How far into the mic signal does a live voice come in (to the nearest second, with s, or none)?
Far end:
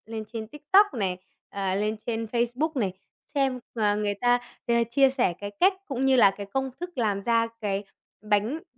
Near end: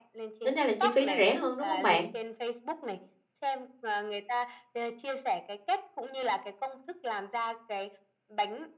0 s